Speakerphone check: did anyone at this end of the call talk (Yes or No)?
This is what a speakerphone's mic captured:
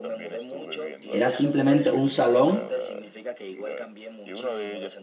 Yes